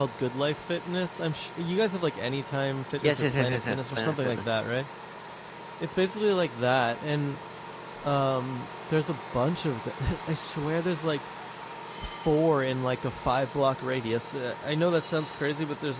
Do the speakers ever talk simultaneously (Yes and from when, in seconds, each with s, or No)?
Yes, from 3.0 s